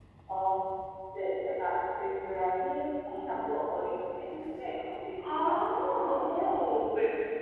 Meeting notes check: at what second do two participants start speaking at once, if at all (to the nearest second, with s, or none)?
5 s